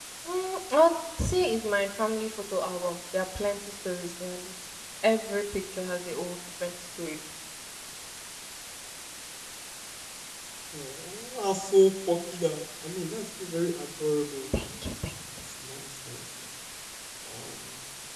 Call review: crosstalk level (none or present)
none